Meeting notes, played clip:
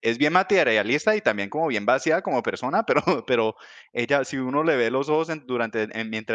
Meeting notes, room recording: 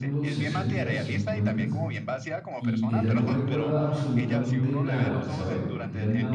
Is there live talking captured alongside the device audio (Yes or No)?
Yes